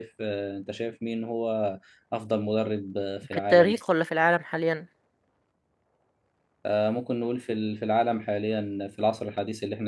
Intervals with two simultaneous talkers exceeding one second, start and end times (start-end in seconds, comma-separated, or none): none